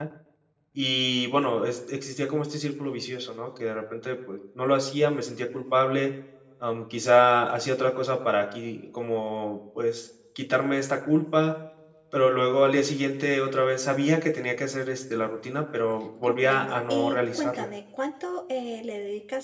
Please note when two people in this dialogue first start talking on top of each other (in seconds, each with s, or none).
16.2 s